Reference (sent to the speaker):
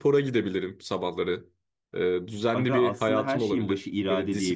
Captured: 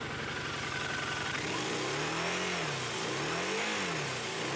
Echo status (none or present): none